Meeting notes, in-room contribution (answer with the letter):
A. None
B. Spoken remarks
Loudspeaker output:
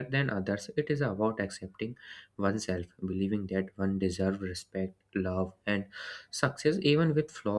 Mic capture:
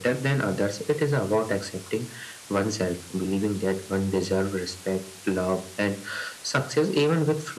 A